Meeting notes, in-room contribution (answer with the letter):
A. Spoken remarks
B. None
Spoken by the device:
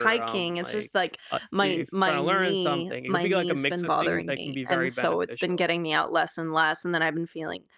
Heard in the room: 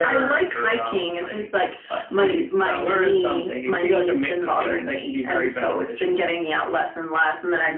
B